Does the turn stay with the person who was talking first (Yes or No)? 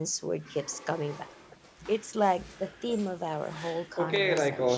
No